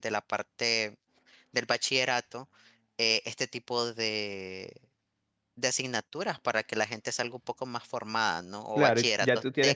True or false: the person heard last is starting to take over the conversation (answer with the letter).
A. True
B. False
A